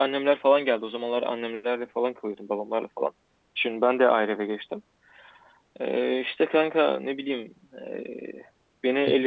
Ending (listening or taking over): listening